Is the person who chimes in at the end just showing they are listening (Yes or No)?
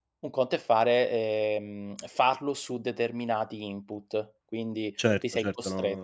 No